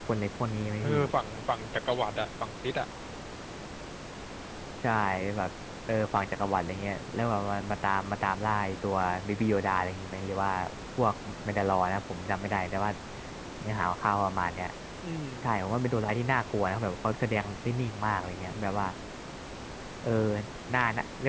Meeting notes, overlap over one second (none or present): none